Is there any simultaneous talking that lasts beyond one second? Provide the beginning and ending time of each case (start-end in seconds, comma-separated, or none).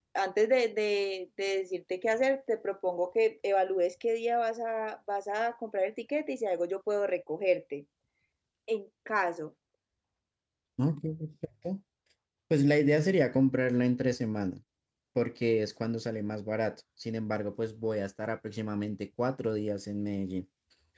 none